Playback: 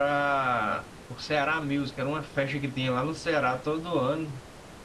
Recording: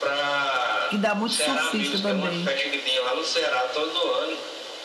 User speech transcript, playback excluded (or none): que dá muito surfista também,